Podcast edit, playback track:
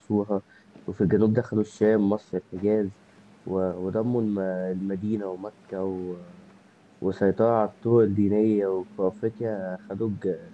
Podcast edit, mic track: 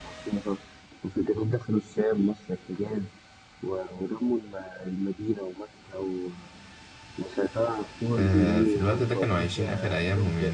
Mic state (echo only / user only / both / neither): both